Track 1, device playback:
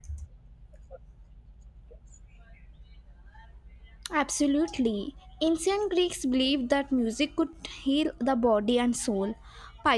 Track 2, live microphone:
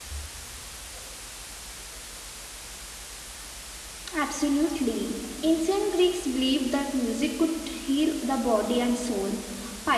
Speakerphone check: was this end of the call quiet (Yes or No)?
Yes